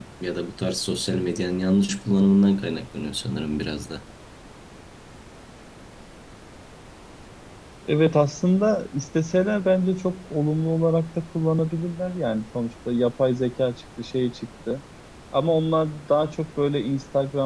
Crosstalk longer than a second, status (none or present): none